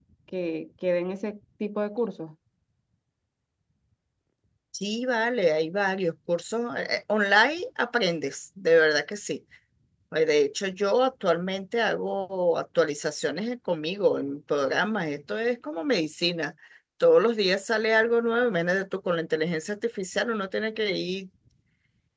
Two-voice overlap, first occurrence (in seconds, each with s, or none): none